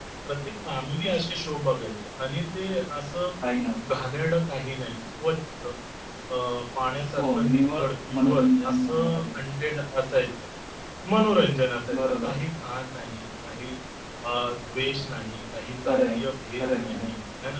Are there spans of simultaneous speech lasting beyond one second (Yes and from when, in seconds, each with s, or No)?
Yes, from 7.2 s